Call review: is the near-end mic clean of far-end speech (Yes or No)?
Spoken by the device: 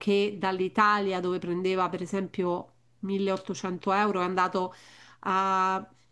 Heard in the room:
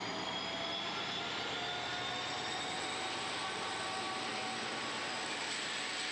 Yes